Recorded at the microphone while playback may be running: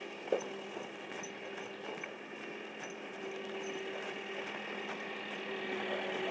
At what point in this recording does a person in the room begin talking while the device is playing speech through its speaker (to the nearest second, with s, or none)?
none